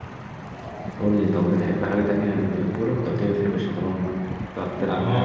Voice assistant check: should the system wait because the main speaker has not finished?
No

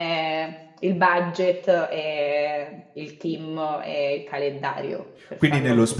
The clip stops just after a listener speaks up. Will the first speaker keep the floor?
No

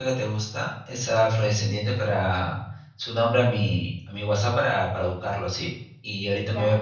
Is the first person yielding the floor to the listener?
No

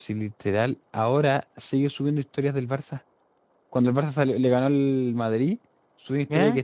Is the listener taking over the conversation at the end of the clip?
No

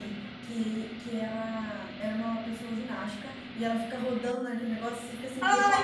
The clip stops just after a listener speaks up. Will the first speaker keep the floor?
No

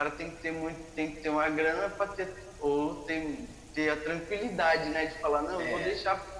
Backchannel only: Yes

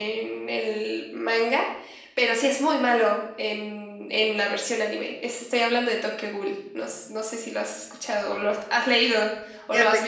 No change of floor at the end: No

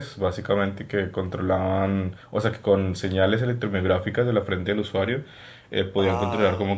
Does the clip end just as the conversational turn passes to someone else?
No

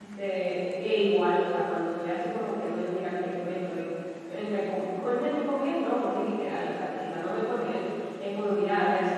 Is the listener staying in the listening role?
Yes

